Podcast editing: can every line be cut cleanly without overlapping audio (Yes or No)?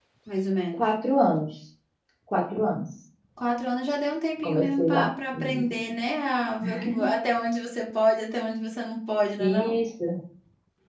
No